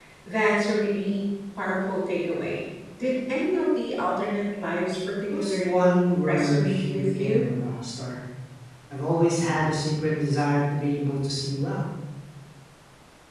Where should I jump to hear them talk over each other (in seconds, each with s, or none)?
5.3 s